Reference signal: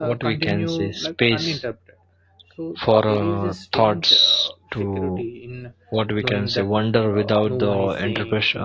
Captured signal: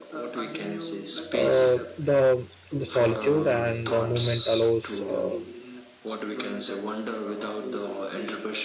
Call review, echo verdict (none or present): present